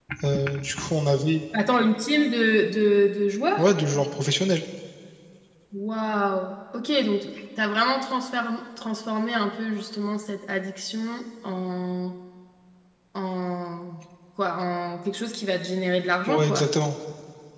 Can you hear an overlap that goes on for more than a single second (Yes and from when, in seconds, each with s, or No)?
No